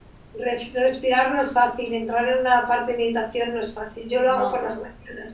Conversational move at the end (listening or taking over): listening